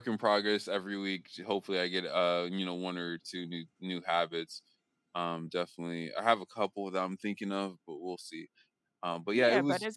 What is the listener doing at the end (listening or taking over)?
taking over